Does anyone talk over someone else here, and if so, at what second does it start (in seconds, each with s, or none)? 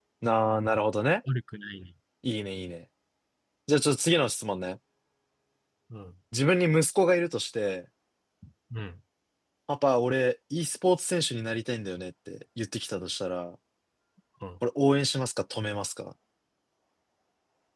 none